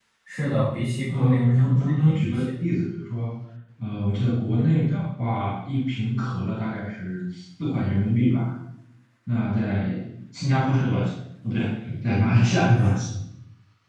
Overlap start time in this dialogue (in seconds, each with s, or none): 1.1 s